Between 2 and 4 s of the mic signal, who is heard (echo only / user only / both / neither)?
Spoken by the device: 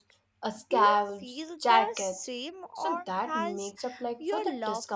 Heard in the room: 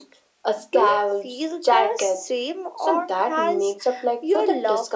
echo only